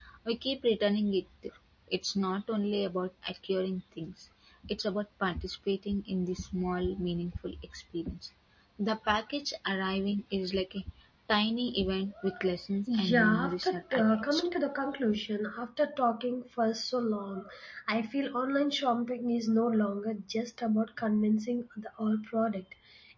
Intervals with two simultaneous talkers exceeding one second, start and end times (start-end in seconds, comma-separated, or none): 12.9-14.5